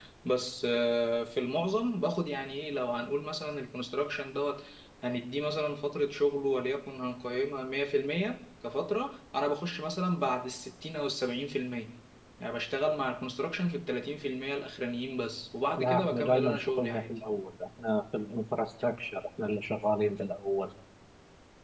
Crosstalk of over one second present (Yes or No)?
Yes